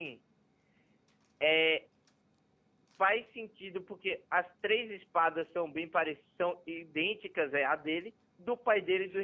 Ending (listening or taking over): listening